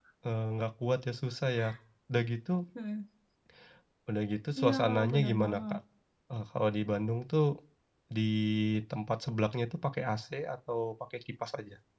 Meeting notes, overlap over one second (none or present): present